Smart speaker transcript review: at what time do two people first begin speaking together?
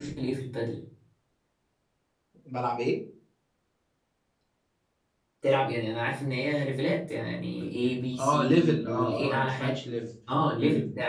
8.2 s

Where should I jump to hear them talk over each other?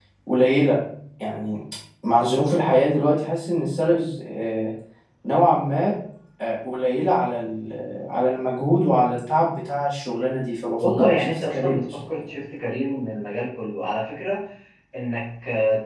10.8 s

